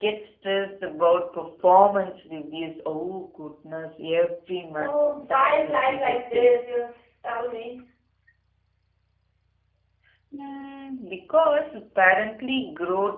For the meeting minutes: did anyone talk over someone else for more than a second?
Yes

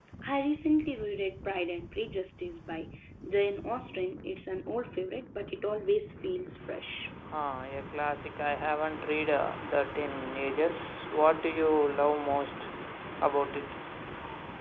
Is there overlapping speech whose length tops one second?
No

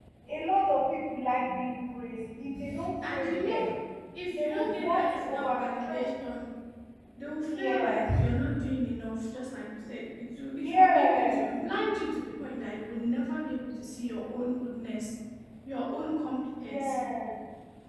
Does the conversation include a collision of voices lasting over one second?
Yes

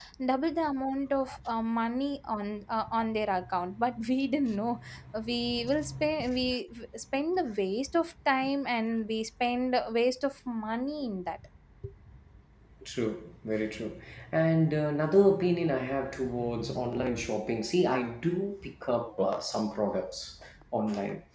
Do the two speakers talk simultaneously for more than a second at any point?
No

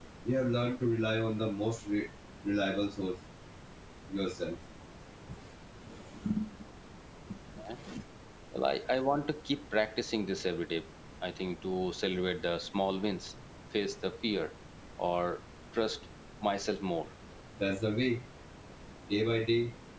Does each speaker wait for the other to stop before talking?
Yes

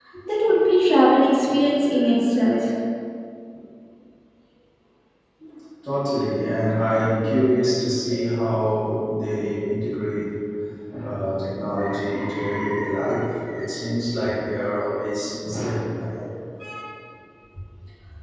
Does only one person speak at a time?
Yes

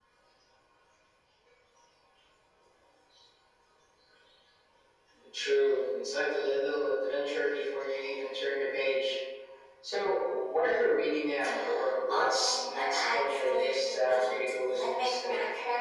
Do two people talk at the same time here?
Yes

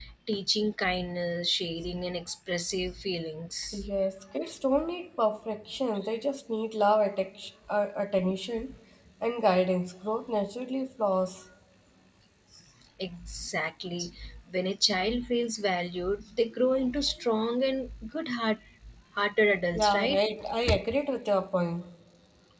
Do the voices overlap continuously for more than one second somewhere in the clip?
No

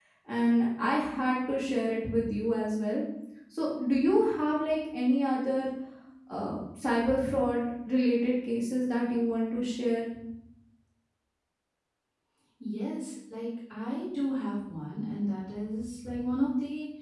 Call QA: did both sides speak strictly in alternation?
Yes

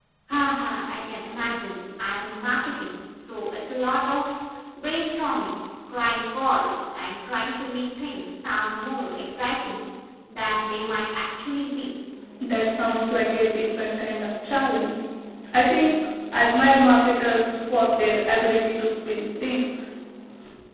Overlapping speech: No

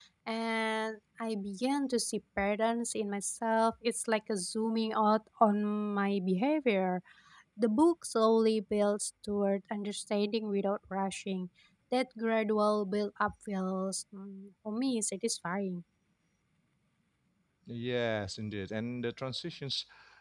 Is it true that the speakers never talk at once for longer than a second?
Yes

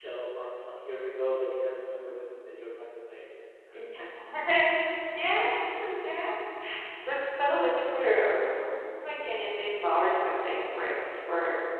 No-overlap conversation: Yes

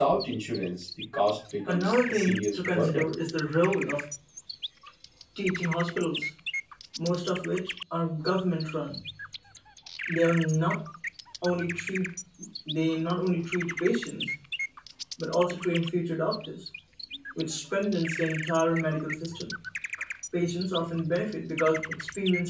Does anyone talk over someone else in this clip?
Yes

